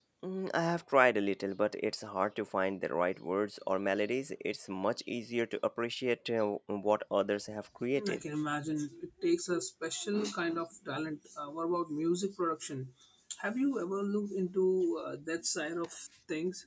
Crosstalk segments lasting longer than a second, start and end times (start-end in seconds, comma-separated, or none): none